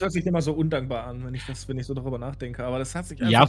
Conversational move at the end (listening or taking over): taking over